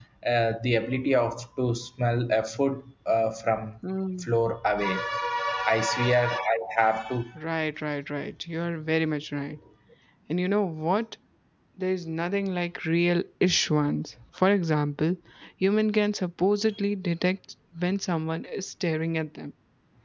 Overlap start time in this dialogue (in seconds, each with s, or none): none